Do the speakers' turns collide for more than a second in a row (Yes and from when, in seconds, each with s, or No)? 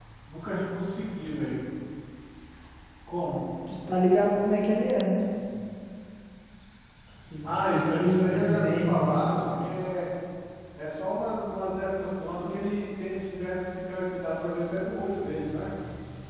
Yes, from 7.4 s